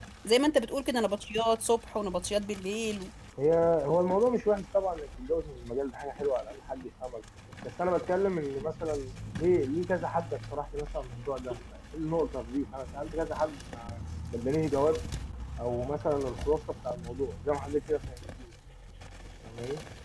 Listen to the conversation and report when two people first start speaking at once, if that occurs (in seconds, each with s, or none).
none